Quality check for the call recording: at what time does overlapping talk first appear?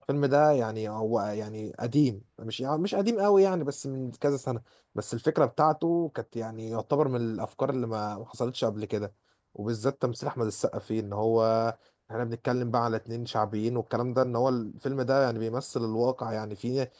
none

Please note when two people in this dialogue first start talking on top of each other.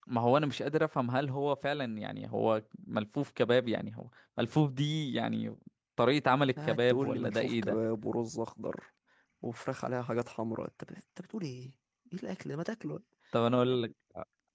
6.6 s

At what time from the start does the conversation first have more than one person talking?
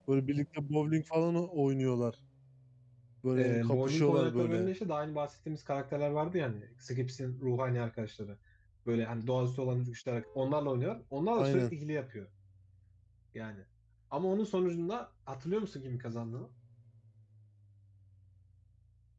3.4 s

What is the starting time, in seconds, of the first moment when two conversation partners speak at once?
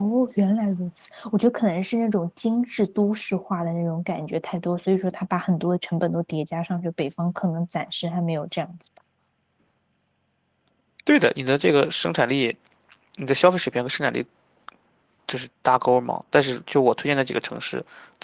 none

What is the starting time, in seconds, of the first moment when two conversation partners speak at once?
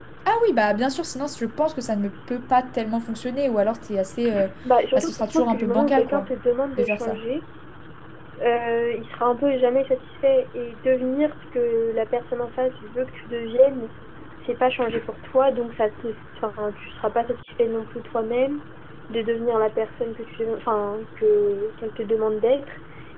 5.0 s

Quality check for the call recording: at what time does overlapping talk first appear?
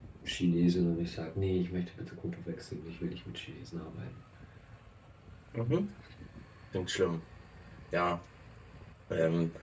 none

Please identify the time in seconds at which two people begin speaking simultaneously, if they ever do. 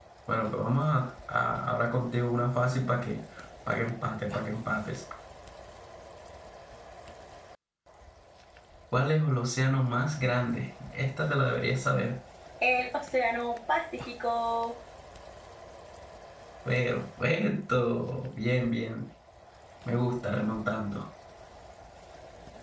none

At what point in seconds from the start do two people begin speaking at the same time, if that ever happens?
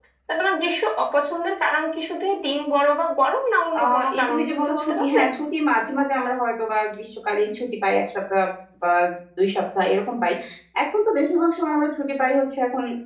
3.8 s

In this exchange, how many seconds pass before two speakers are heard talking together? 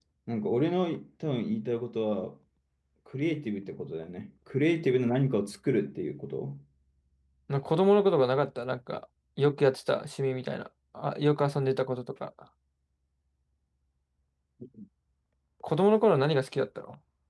none

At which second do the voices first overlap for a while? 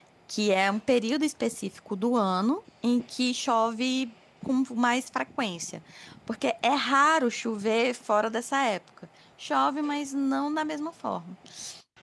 none

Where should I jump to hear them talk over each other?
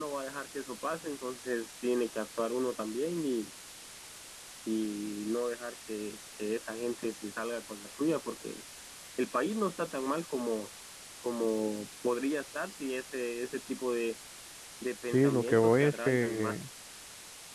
15.1 s

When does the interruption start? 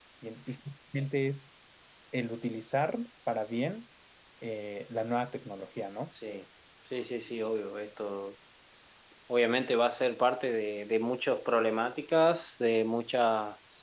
none

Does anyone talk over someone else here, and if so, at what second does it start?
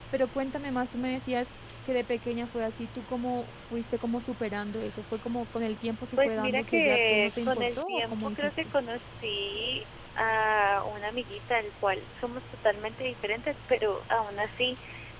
6.2 s

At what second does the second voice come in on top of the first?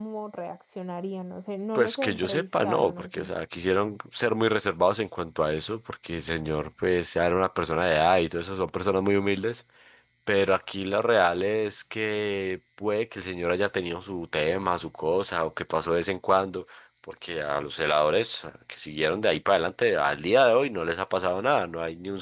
1.8 s

